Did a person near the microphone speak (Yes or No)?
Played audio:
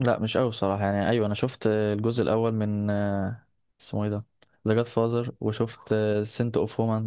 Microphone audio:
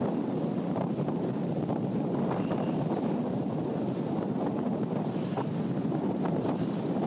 No